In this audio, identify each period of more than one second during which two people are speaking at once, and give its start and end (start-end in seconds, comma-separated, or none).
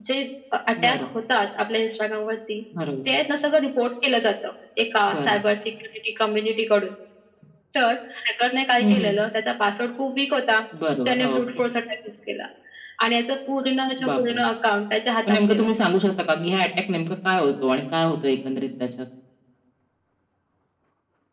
none